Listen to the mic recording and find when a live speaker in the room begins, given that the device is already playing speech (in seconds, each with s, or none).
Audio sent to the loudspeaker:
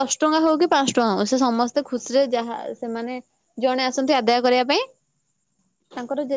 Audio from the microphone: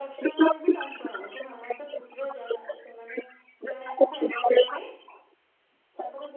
none